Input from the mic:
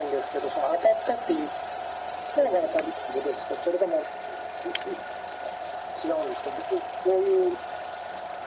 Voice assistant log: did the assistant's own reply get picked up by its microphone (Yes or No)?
Yes